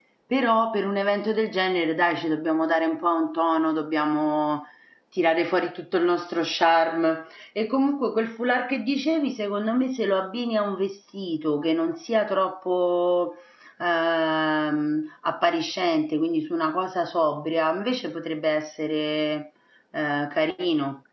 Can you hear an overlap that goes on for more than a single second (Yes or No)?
No